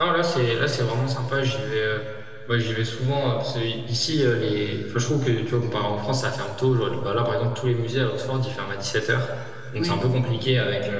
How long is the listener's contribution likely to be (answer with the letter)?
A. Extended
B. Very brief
B